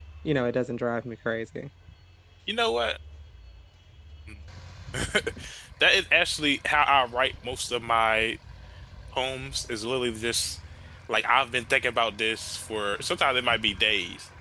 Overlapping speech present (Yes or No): No